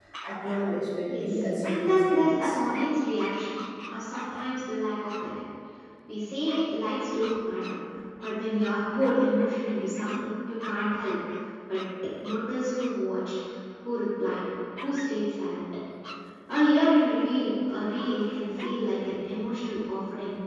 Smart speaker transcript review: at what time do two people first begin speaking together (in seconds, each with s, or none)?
1.1 s